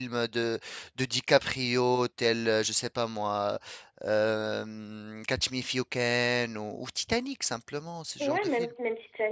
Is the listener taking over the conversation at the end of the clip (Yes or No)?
Yes